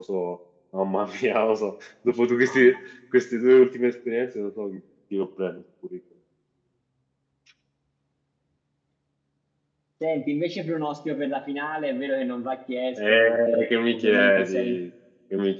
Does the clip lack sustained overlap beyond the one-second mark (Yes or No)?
No